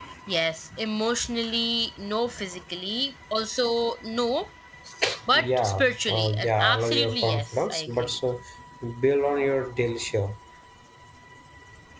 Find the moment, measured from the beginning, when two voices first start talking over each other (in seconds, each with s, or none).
5.3 s